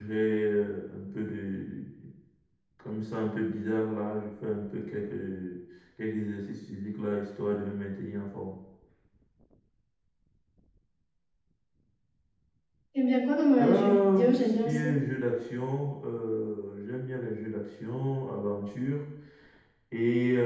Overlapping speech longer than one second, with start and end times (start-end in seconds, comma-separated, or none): 13.6-14.9